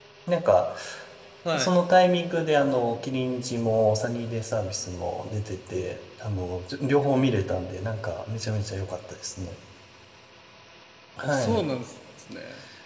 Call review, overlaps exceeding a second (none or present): none